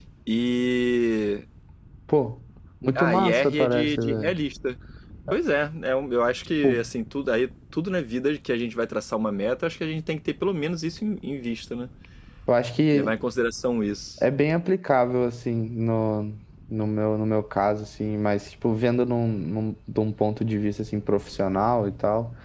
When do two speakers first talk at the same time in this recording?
3.0 s

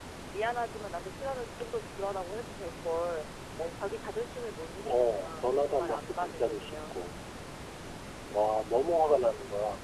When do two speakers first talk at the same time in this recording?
4.8 s

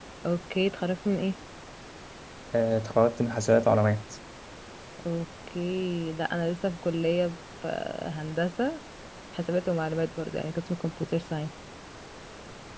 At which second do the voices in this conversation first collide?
none

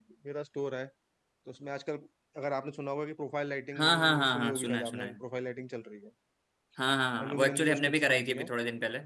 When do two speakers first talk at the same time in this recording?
3.8 s

